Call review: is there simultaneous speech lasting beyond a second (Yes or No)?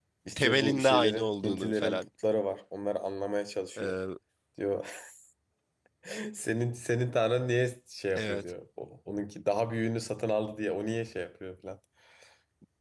Yes